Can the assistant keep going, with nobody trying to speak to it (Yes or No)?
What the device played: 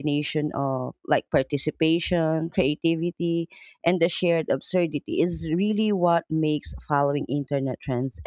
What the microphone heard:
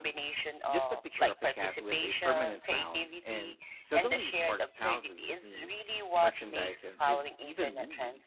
No